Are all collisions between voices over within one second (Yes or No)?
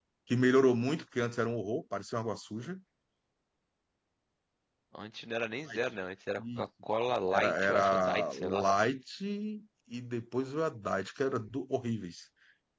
No